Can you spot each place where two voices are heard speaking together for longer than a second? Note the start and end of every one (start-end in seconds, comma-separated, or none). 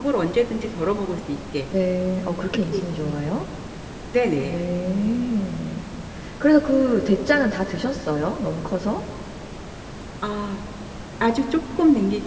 none